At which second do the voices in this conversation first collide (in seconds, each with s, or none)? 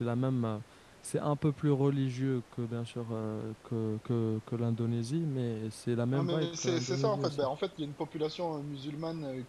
6.1 s